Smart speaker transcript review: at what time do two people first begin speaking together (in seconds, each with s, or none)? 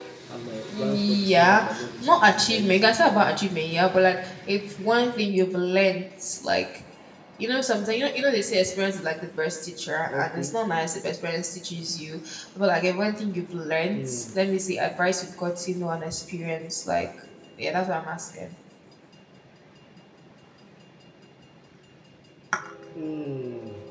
0.6 s